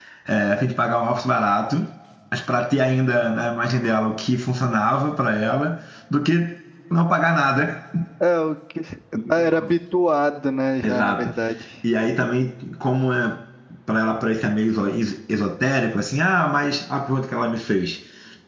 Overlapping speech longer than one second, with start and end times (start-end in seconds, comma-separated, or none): none